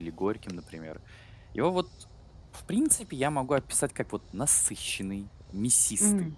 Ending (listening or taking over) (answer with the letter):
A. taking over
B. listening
B